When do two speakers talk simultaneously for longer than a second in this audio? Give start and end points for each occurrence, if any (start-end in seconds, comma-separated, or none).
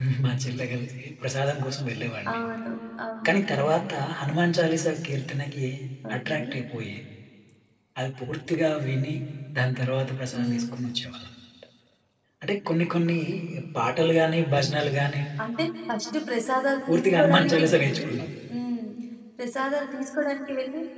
16.9-18.1